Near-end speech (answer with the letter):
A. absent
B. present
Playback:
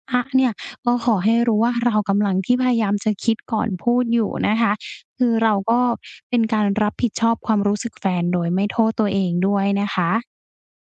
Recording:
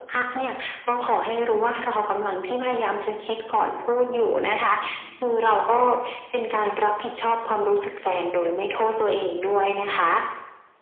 B